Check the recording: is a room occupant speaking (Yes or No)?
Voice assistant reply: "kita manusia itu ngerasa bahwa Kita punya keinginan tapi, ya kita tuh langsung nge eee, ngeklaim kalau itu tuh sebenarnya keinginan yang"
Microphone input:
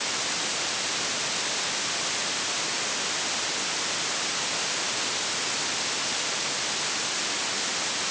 No